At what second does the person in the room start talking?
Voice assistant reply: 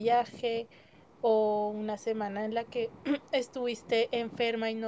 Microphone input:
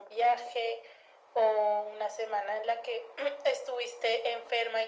none

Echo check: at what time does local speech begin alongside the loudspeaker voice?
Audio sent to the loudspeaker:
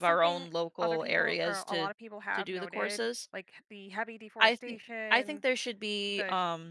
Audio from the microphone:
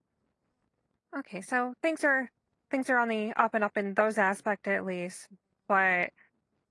1.2 s

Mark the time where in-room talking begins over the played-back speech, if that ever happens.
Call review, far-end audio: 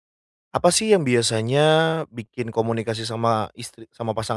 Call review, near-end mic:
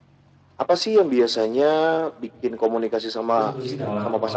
3.3 s

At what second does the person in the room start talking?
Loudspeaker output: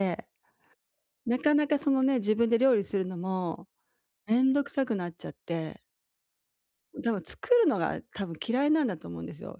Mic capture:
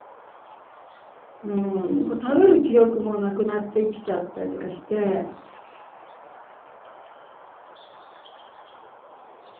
1.4 s

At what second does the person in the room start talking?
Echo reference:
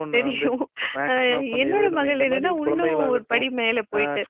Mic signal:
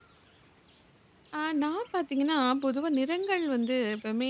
1.4 s

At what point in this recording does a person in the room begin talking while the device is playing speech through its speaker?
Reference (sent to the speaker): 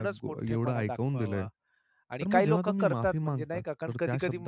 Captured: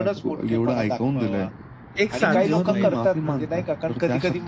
2.0 s

